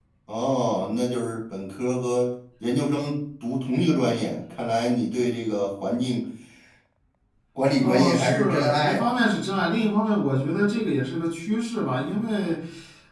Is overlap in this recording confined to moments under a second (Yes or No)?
No